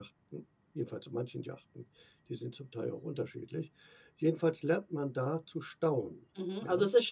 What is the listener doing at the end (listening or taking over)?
taking over